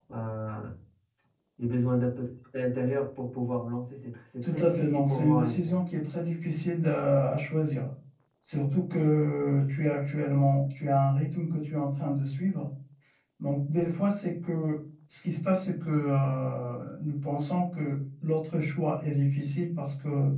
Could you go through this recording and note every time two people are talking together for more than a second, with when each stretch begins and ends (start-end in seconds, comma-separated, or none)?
4.4-5.8